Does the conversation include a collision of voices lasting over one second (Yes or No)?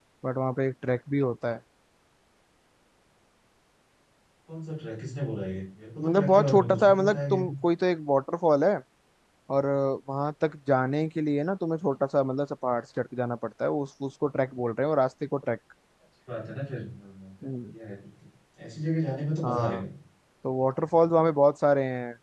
Yes